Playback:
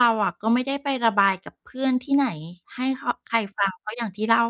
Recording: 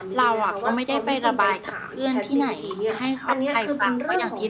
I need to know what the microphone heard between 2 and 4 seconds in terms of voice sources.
both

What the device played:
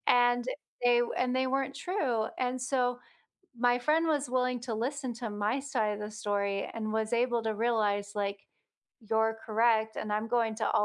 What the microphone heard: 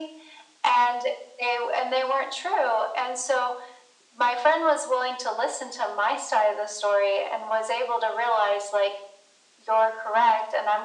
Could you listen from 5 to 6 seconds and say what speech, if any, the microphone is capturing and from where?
echo only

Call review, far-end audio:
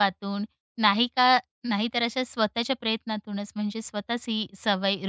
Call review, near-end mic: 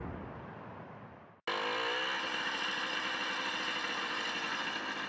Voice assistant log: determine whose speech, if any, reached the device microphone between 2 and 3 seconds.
neither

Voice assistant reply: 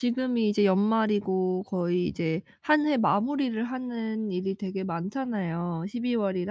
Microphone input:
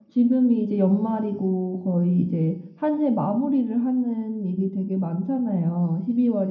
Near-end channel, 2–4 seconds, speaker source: echo only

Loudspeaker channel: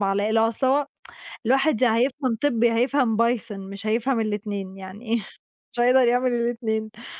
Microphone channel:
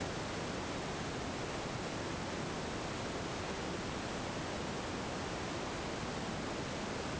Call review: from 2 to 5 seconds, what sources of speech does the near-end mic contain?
neither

